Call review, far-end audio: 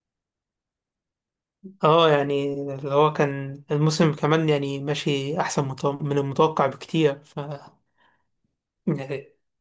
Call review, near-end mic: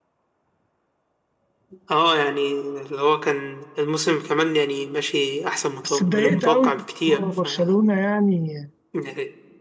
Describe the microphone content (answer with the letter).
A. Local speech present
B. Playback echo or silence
A